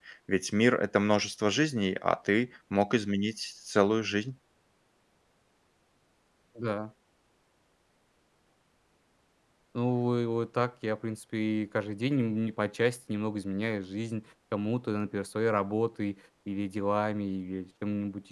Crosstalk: none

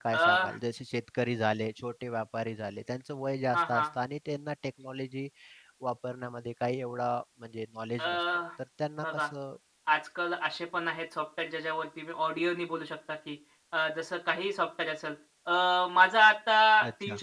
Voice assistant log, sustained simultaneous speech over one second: none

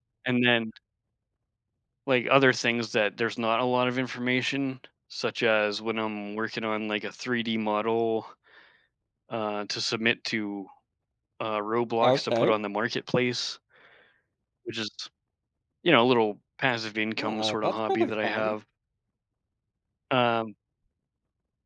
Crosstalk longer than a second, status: present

